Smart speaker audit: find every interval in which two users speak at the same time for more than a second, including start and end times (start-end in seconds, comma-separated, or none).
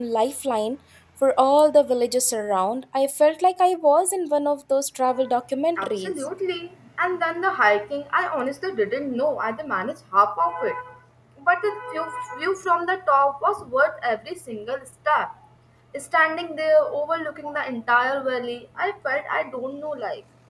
none